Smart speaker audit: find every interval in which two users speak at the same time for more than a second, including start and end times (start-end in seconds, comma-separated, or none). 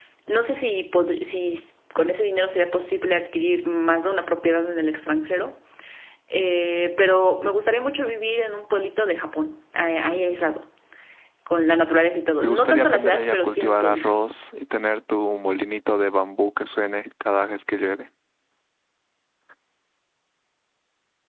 12.4-14.1